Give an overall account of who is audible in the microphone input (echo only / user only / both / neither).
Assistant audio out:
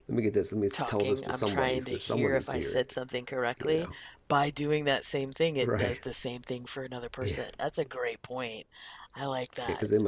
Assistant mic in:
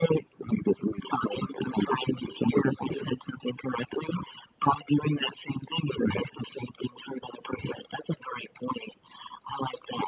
echo only